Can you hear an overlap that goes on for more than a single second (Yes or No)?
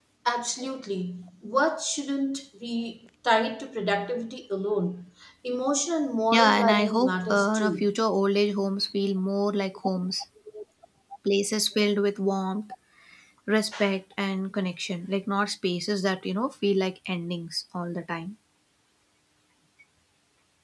Yes